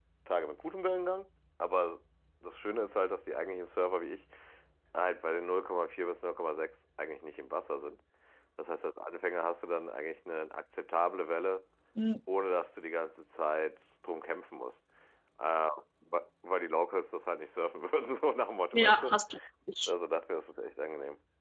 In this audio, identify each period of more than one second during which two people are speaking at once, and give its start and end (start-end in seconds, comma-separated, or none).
none